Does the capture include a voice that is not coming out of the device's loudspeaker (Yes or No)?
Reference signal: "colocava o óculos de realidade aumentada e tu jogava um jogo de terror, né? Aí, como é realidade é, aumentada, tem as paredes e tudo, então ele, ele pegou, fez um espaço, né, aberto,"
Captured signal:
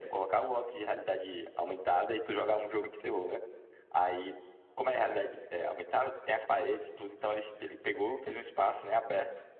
No